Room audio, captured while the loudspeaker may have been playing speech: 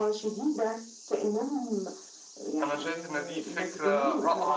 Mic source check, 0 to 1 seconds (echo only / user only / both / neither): echo only